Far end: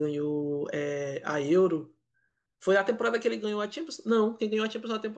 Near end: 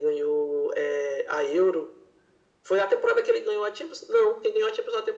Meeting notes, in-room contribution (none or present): none